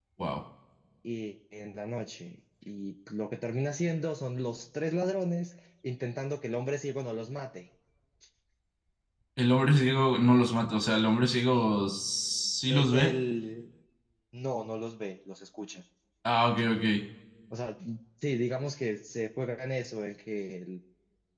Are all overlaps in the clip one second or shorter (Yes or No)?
Yes